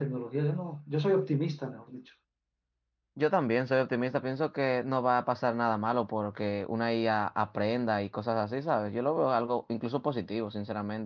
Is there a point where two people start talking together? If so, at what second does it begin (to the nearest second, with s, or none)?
none